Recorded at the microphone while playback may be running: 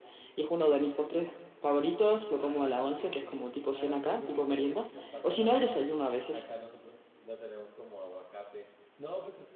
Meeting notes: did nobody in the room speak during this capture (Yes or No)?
No